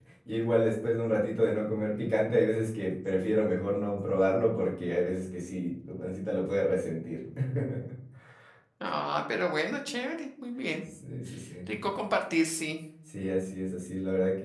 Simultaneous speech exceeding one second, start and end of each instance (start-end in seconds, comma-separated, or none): none